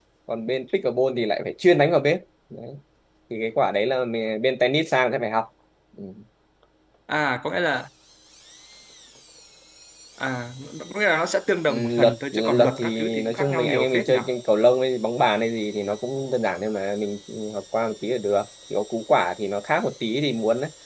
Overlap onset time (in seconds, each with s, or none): 11.7 s